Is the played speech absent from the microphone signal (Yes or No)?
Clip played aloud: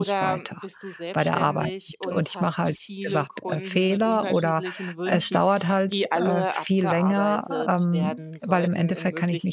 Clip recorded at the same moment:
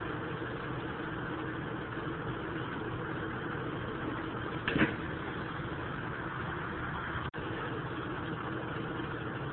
Yes